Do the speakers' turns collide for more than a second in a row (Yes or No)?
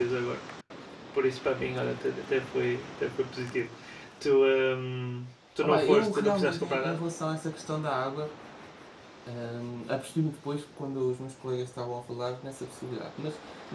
Yes